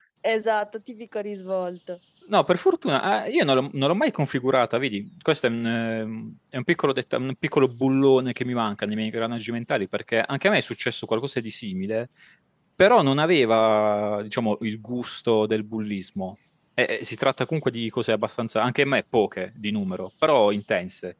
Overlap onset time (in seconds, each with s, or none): none